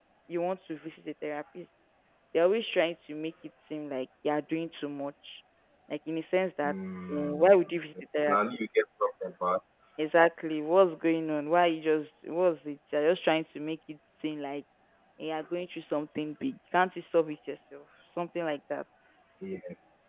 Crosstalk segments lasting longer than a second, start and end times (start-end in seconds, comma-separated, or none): none